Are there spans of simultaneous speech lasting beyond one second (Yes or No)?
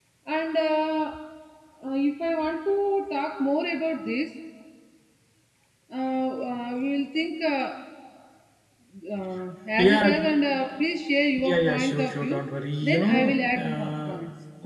Yes